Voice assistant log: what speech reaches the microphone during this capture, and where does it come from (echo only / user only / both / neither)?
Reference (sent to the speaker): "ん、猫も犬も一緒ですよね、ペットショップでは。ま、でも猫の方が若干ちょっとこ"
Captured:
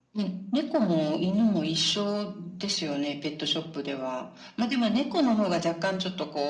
echo only